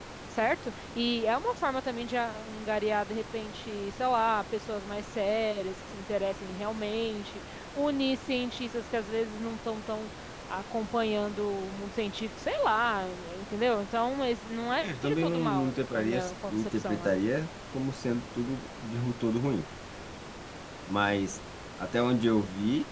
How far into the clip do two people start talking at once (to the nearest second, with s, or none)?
15 s